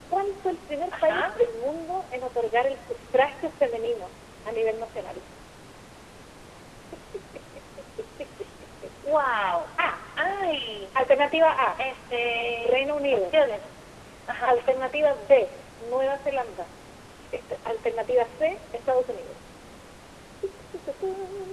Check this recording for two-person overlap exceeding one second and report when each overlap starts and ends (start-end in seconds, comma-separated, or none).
none